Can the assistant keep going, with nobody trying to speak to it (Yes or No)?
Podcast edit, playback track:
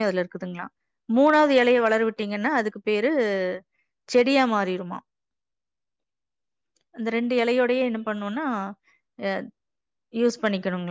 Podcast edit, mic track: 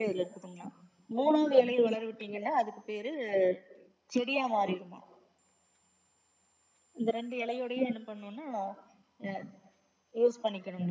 Yes